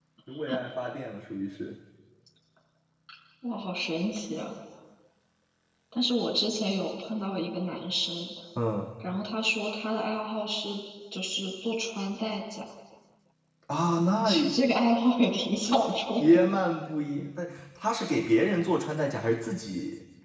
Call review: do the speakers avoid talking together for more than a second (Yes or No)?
Yes